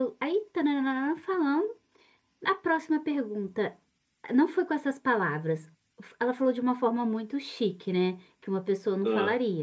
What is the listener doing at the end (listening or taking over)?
listening